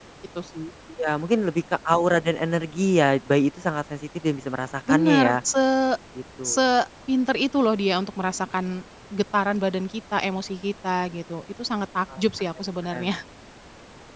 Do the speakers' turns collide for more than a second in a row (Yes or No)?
No